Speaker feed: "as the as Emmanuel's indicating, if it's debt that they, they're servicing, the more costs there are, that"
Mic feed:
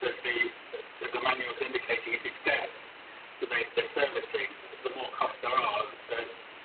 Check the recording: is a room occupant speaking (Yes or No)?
No